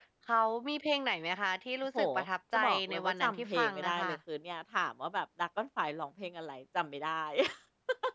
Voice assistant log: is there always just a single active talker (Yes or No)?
No